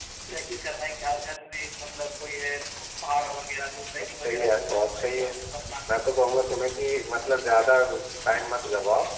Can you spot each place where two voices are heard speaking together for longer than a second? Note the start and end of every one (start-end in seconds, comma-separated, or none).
4.0-5.3